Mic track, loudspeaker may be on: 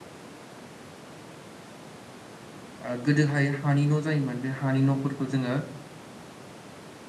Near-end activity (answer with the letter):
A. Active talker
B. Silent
A